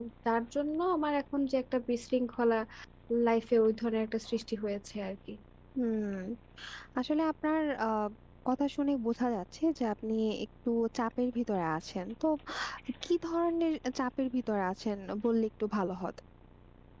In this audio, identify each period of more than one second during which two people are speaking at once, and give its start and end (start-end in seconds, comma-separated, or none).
none